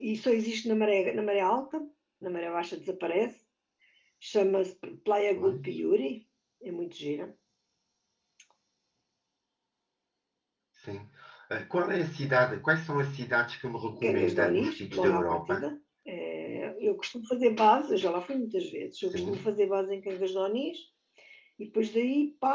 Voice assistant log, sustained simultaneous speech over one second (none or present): present